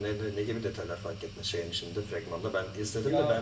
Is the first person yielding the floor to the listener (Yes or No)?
No